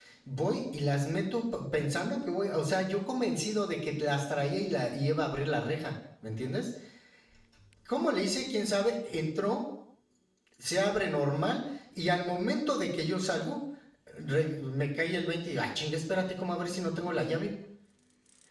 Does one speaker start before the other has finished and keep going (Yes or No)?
No